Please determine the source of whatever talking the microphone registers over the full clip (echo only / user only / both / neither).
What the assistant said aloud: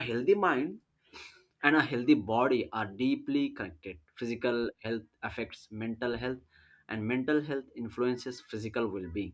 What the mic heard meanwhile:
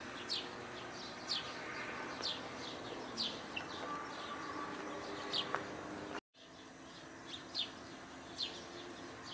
neither